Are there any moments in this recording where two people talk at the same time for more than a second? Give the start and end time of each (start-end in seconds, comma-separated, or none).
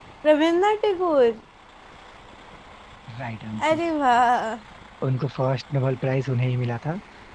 none